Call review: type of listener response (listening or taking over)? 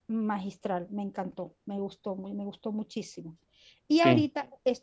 listening